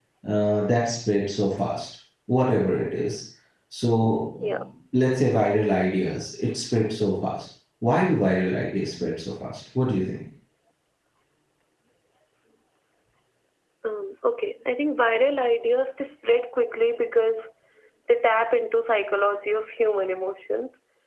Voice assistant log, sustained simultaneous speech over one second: none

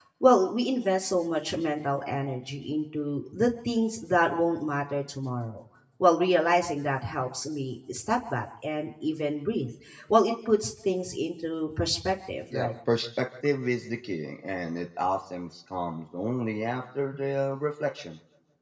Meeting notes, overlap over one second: none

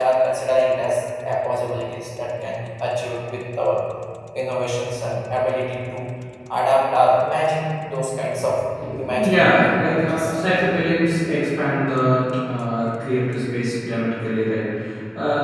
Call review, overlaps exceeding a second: present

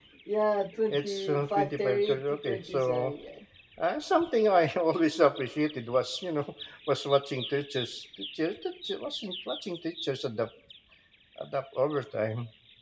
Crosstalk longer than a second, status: present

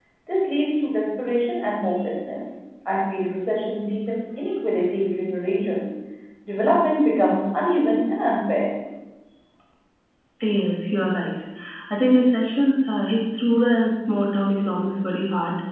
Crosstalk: none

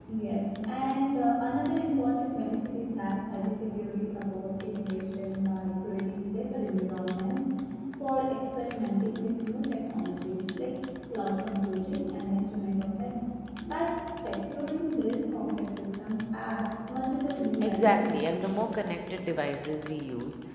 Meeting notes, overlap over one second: present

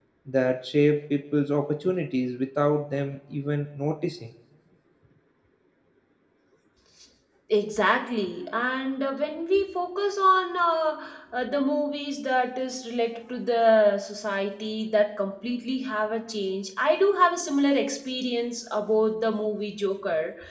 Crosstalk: none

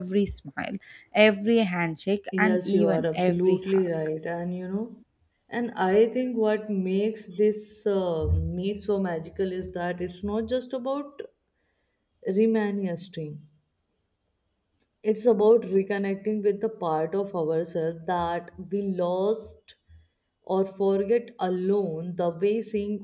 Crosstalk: present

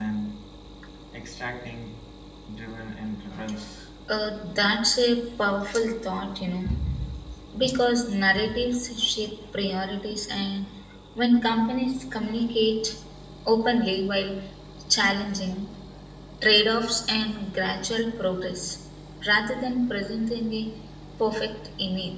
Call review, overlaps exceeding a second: none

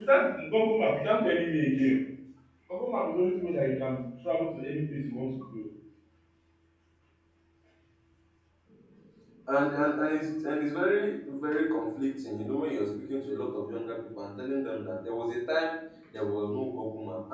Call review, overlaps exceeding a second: none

